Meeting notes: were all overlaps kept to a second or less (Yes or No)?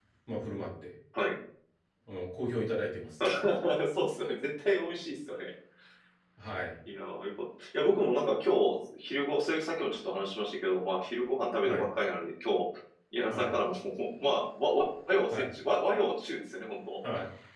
Yes